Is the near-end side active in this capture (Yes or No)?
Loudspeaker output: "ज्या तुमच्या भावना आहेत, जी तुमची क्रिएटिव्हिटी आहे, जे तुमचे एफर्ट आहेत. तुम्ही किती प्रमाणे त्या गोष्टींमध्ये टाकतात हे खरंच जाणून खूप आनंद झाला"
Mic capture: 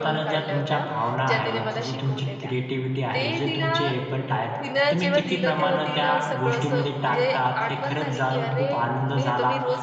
Yes